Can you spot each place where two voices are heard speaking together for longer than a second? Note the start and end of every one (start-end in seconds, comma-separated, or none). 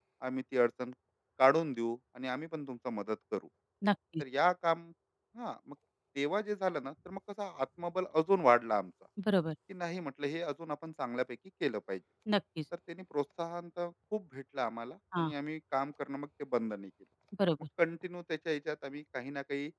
none